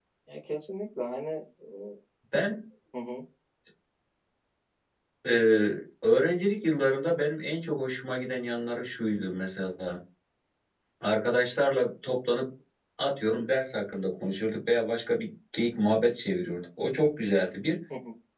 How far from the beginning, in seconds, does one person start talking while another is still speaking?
none

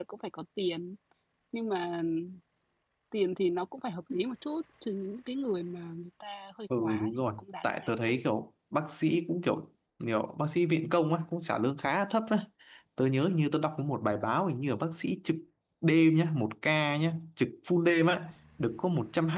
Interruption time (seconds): 6.7 s

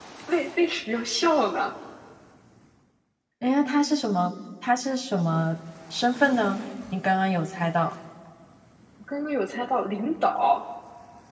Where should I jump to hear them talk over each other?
none

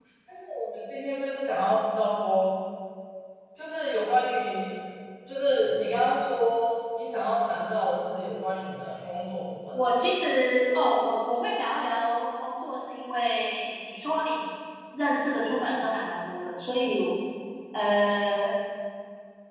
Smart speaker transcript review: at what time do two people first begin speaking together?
none

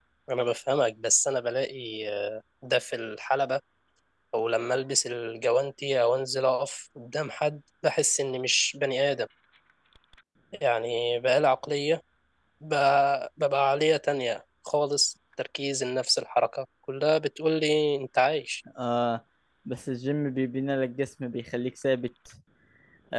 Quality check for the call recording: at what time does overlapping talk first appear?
none

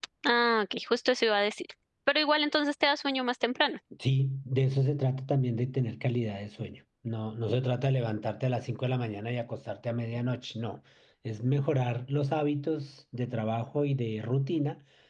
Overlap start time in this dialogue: none

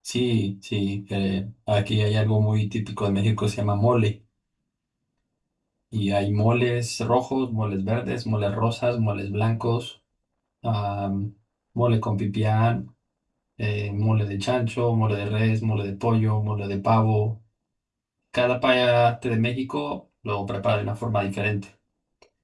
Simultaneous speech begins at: none

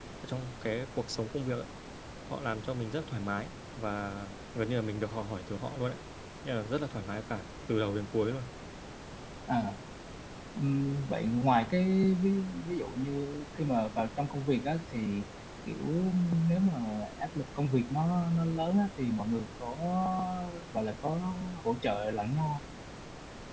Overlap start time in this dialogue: none

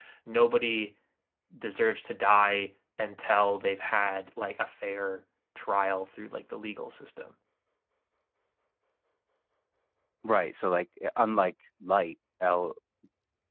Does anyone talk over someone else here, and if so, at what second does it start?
none

